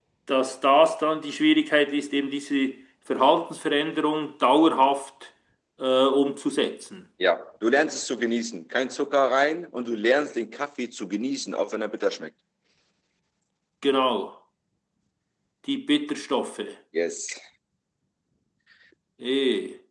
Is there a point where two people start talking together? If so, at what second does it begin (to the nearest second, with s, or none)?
none